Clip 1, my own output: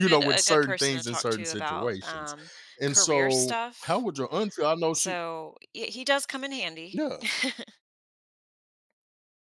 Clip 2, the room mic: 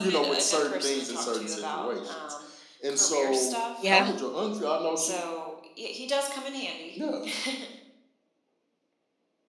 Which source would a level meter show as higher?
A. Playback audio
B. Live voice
B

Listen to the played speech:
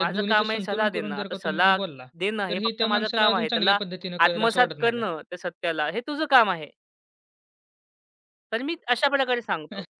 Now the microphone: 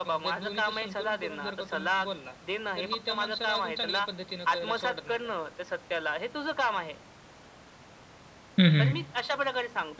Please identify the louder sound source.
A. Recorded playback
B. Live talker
B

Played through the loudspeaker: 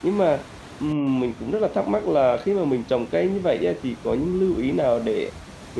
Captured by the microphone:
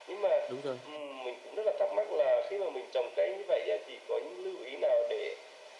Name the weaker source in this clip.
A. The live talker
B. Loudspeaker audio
A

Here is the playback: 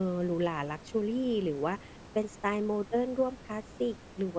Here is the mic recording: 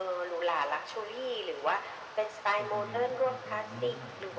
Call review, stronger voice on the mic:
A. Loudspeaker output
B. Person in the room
A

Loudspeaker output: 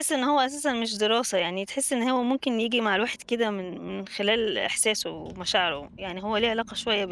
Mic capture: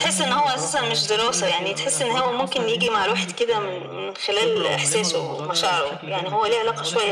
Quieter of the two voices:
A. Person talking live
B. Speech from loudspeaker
A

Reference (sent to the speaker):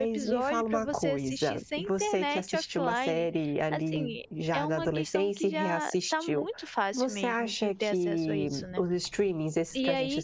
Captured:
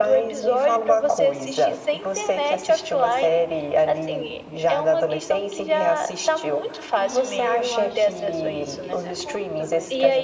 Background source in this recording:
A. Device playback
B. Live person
B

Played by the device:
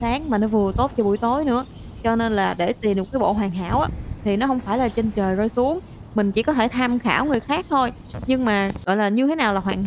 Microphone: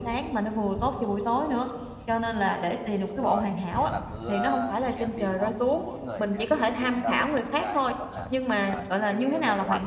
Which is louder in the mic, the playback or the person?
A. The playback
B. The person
A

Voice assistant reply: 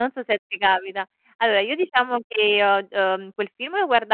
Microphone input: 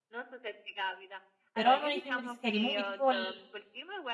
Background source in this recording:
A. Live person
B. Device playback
B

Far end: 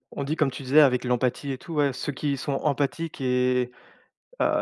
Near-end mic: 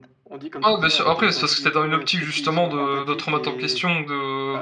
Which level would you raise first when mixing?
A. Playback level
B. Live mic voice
A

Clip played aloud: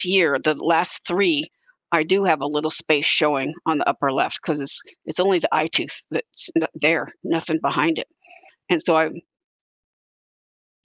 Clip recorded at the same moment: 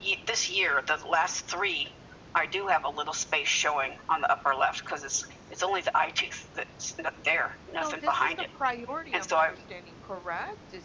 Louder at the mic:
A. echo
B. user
A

